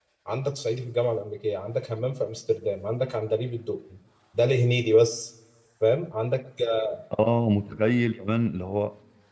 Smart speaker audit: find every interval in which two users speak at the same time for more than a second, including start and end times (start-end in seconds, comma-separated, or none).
none